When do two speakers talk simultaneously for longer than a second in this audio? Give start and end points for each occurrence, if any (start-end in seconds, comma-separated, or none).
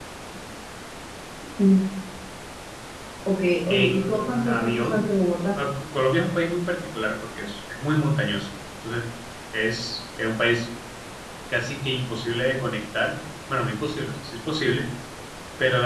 3.7-5.0